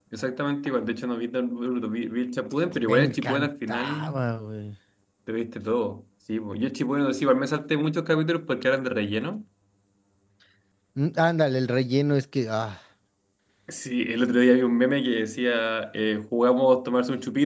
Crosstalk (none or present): present